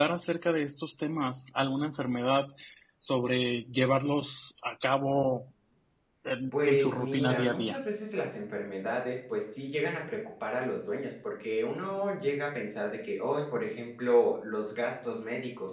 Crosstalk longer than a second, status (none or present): present